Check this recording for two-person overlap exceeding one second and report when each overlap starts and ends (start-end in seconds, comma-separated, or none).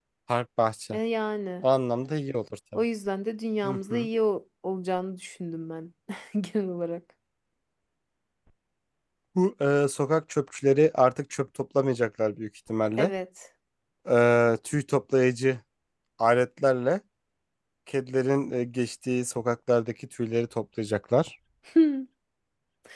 none